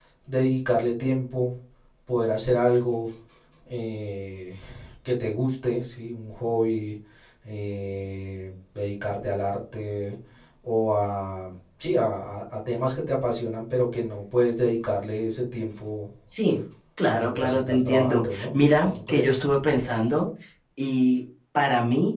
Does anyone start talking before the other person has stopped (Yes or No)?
Yes